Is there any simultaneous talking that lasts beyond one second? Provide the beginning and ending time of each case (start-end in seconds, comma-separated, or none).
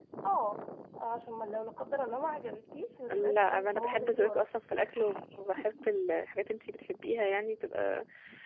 3.1-4.4